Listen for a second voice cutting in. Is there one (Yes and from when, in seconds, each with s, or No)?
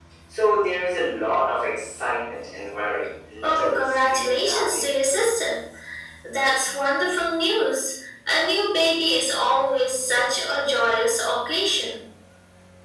Yes, from 3.4 s